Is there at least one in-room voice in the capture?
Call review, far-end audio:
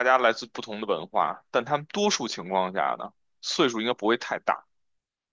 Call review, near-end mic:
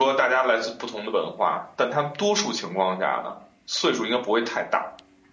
No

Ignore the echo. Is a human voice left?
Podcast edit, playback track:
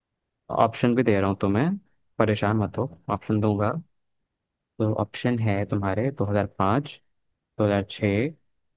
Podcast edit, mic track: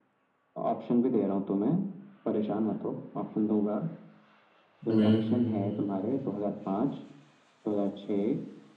Yes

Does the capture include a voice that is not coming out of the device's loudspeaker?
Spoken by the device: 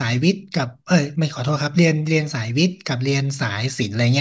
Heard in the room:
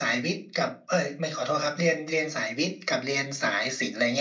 No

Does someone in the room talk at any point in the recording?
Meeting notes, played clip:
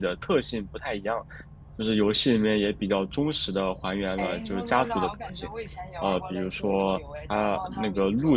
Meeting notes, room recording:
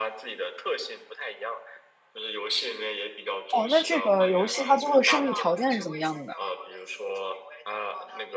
Yes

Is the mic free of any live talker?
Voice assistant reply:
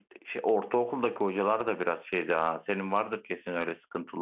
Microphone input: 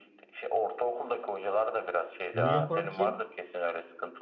No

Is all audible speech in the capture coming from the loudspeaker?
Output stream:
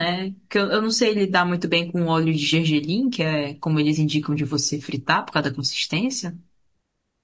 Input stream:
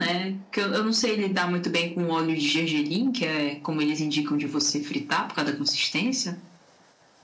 Yes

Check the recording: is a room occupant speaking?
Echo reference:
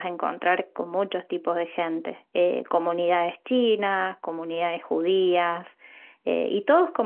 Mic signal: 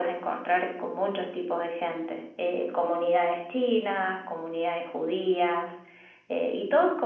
No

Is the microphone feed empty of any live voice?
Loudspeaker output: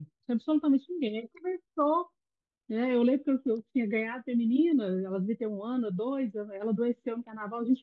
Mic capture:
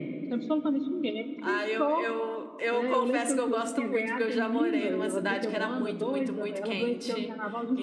No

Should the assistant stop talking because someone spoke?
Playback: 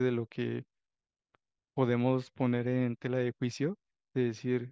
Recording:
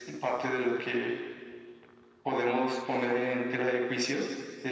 No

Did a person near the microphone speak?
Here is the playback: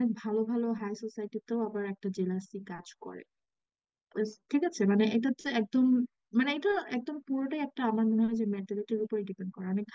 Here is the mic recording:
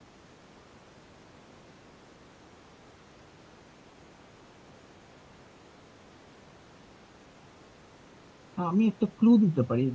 Yes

